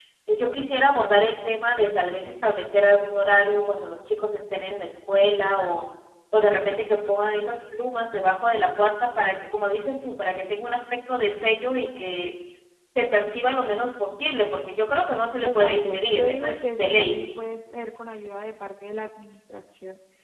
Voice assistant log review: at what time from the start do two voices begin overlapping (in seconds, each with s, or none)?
15.4 s